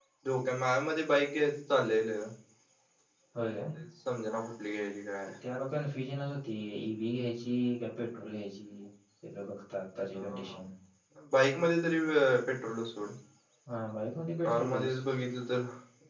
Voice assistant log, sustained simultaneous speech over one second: none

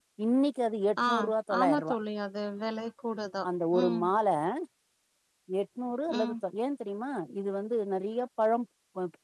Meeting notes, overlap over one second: none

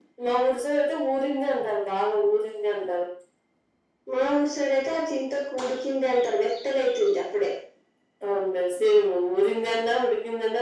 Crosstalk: none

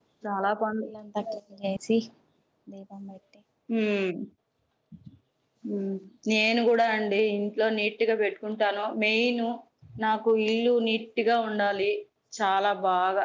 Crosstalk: none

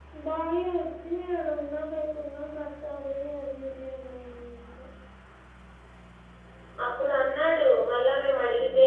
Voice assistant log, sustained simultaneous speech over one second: none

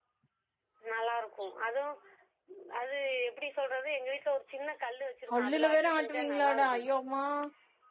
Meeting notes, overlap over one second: present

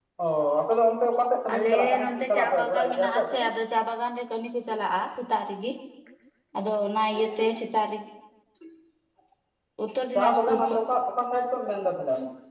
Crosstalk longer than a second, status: present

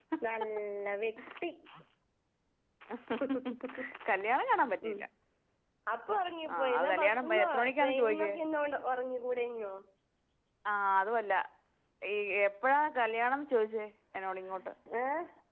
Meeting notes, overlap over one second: present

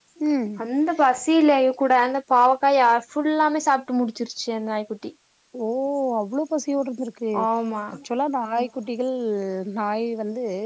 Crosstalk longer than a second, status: none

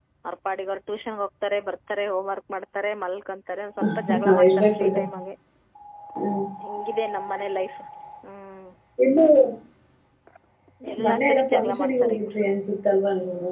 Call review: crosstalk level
present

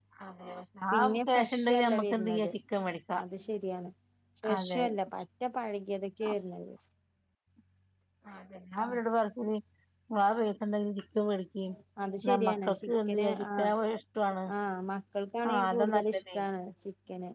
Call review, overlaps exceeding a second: present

